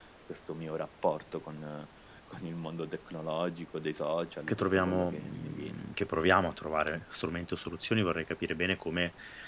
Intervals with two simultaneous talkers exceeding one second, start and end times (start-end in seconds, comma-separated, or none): 4.5-5.8